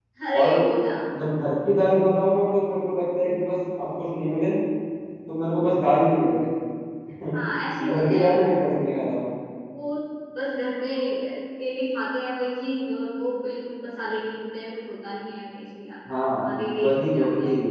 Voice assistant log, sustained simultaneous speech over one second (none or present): present